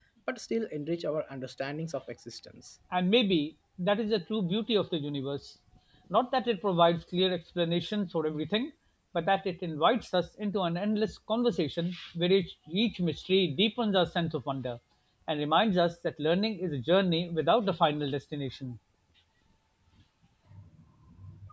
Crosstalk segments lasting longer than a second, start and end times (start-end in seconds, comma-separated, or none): none